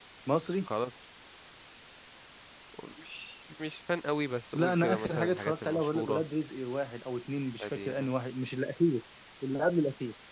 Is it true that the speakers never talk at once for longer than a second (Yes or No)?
No